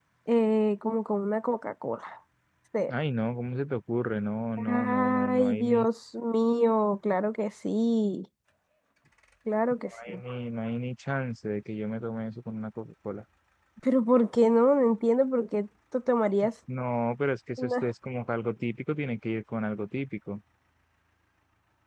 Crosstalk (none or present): present